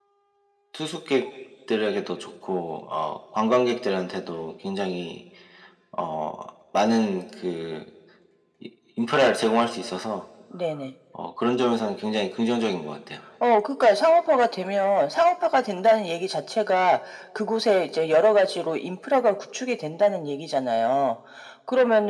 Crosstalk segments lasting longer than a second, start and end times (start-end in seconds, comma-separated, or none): none